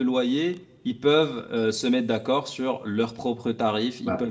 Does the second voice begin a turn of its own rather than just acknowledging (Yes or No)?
No